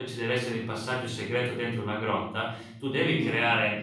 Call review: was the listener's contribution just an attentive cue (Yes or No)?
Yes